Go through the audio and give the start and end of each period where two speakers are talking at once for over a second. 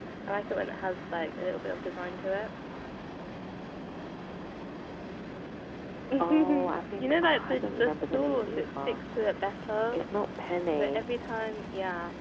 6.2-9.0

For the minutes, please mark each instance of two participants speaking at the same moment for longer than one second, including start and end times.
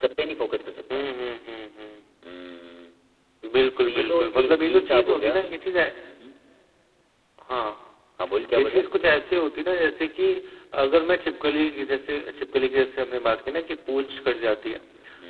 3.8-5.3

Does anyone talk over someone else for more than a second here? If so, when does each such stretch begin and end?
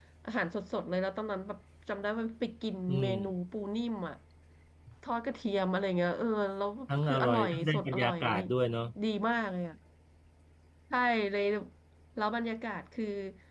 7.0-8.4

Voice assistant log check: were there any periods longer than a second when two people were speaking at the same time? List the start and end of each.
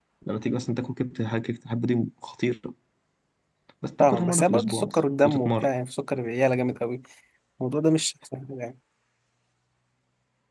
4.0-5.7

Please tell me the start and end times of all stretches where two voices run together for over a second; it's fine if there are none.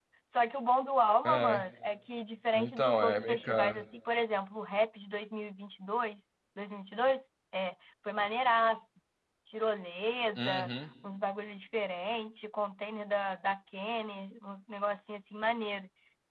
2.5-3.8

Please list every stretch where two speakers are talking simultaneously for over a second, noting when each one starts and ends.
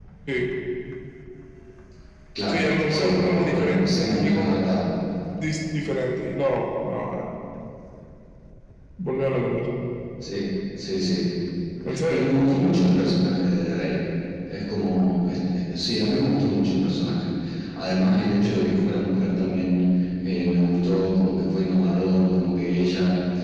2.5-4.6

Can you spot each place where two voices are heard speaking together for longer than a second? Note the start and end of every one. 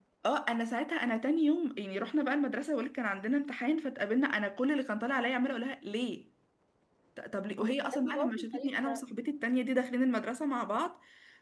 7.6-9.0

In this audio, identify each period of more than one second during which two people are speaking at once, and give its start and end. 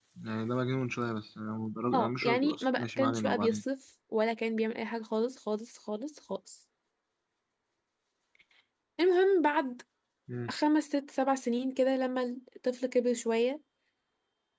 1.9-3.6

